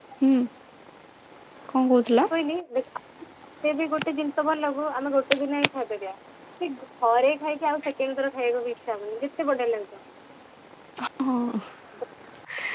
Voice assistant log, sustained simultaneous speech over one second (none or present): none